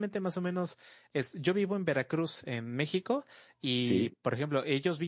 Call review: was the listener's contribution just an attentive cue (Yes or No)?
Yes